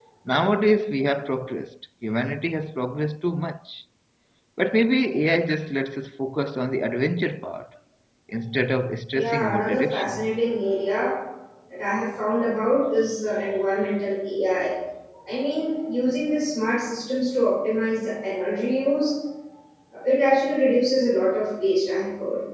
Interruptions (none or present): present